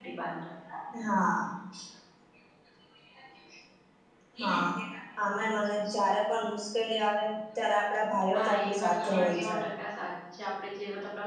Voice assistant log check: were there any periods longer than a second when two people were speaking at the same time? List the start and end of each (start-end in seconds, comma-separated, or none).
8.4-9.6